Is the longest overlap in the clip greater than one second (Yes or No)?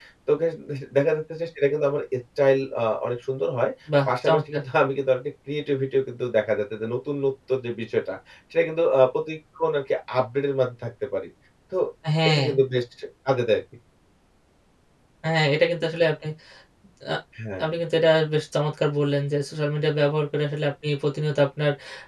No